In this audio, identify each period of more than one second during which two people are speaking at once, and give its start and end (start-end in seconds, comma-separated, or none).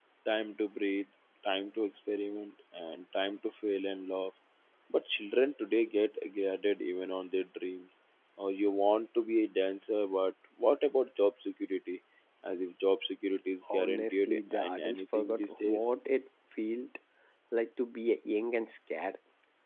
13.7-16.0